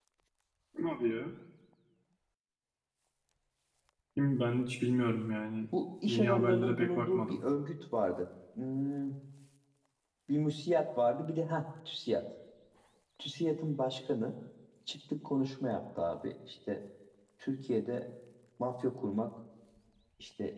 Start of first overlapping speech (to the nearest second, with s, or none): 6 s